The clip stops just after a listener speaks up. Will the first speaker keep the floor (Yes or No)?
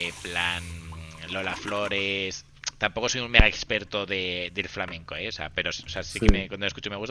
Yes